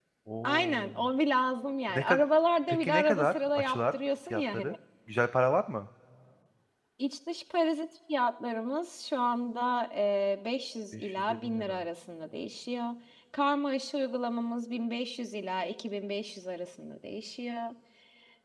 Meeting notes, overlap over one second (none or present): present